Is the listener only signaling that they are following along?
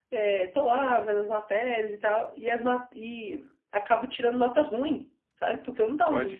No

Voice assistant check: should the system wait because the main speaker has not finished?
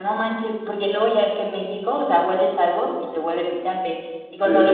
Yes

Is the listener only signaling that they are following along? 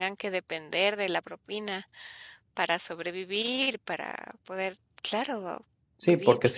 No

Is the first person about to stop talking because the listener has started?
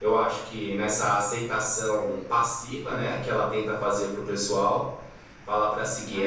No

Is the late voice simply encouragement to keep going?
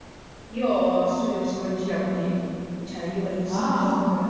Yes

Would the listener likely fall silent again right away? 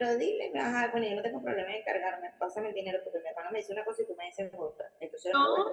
Yes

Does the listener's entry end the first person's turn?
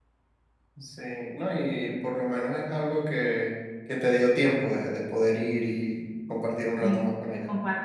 Yes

